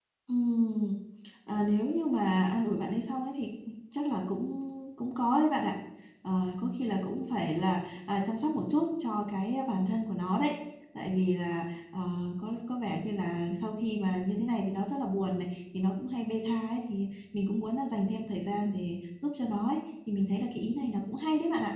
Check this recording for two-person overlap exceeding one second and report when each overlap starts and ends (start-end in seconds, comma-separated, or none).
none